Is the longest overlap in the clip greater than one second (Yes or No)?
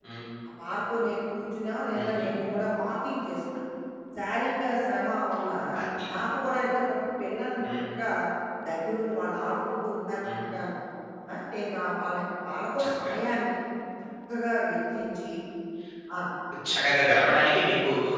No